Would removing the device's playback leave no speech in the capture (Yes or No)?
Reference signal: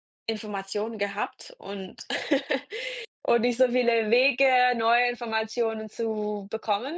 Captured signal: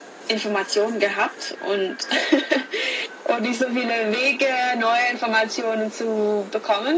Yes